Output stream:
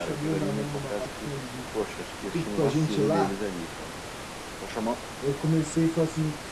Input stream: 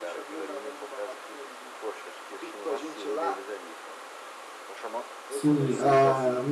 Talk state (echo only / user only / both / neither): both